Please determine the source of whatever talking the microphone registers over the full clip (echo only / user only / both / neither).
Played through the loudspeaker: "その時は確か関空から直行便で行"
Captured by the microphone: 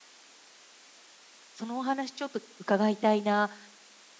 user only